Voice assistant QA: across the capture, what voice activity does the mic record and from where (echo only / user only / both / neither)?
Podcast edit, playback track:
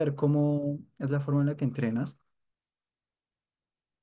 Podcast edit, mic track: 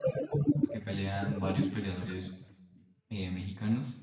both